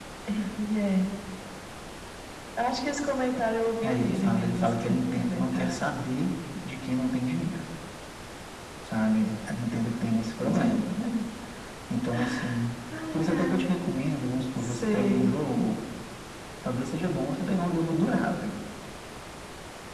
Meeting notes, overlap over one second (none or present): present